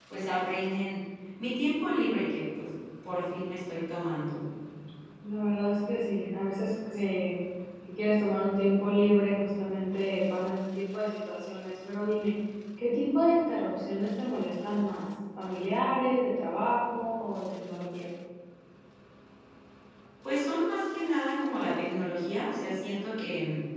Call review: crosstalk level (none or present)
none